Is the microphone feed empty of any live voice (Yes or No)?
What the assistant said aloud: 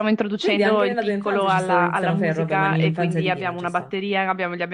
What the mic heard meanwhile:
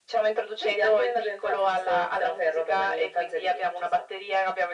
Yes